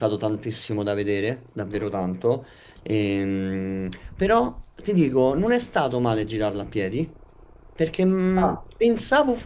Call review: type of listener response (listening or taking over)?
listening